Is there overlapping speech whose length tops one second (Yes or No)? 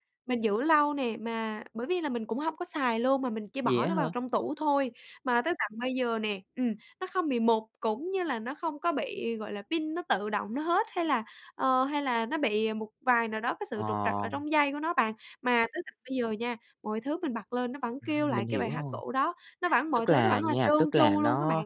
Yes